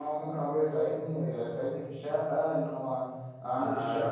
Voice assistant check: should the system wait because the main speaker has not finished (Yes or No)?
No